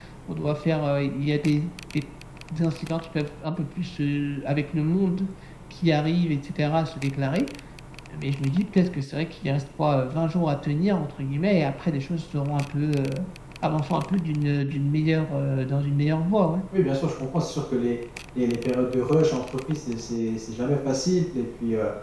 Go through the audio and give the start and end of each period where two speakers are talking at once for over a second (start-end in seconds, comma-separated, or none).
none